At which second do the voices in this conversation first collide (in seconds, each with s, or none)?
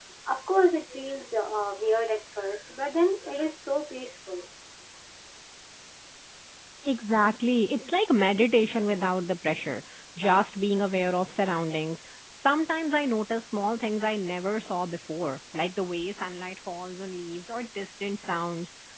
none